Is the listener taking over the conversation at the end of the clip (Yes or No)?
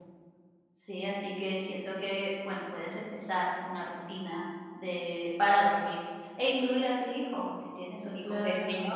No